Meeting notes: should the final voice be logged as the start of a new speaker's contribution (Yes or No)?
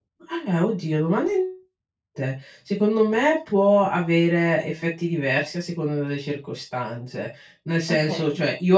No